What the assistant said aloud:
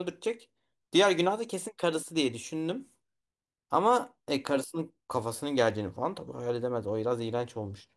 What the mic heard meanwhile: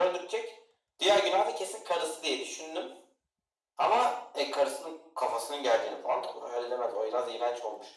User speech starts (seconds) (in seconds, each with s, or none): none